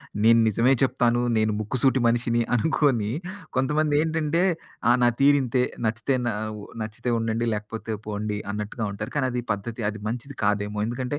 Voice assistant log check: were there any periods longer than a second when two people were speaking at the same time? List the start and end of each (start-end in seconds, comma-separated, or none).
none